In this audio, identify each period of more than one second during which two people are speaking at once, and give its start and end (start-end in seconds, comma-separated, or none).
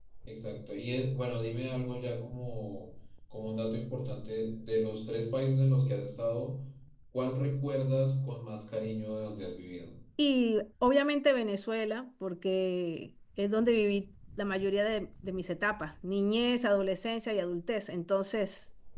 none